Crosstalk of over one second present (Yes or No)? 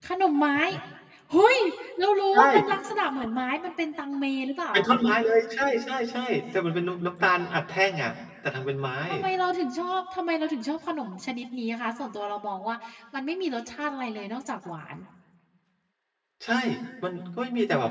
No